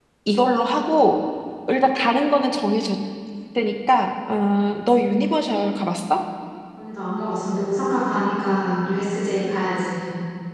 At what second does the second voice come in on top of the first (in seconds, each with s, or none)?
none